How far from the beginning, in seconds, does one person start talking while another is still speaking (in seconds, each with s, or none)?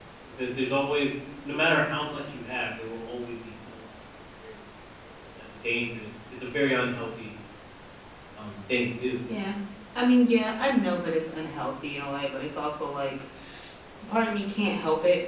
none